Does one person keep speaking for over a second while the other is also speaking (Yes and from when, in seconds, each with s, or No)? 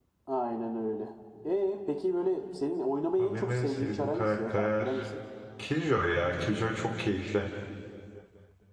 Yes, from 3.2 s